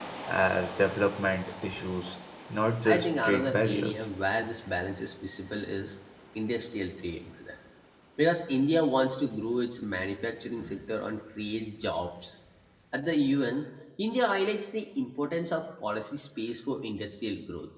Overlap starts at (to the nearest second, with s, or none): 3 s